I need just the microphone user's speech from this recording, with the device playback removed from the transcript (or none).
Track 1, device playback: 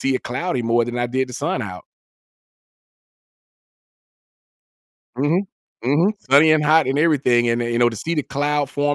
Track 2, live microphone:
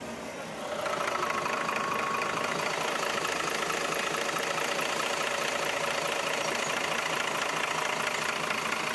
none